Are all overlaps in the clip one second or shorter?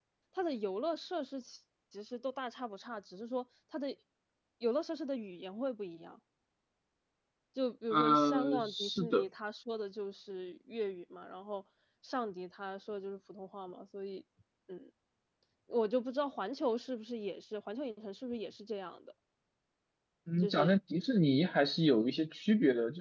No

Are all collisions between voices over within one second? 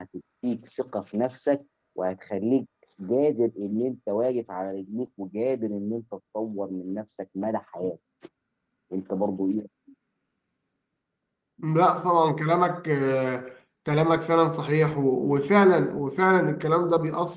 Yes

